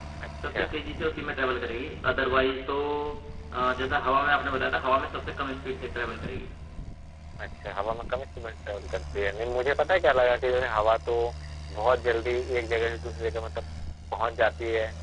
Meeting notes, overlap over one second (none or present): none